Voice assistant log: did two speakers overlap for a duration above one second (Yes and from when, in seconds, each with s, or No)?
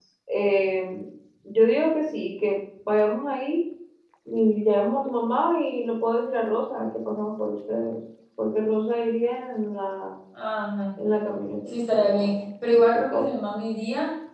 Yes, from 11.7 s